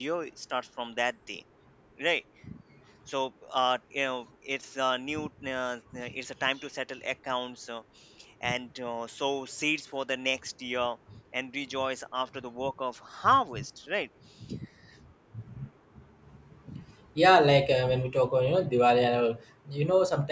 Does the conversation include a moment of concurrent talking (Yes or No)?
No